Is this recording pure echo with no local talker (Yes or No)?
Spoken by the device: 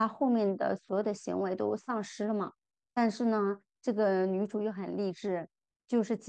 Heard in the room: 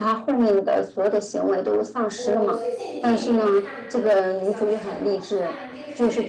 No